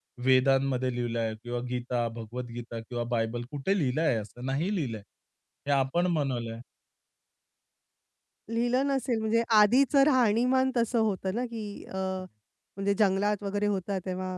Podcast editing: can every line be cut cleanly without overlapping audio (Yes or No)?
Yes